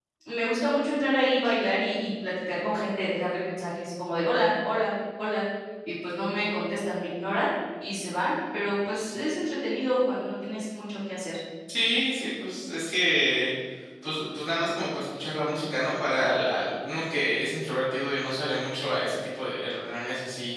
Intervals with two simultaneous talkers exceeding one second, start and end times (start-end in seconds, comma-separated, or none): none